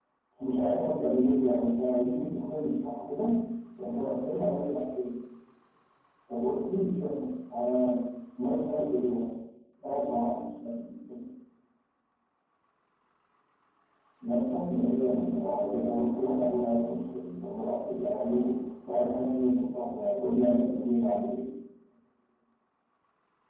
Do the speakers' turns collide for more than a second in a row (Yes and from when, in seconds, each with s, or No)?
Yes, from 14.7 s